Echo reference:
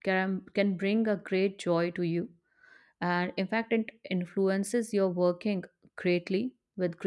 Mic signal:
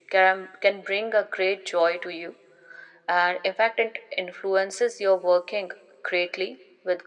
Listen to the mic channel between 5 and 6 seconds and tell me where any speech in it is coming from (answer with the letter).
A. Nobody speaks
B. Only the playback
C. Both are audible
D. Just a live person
B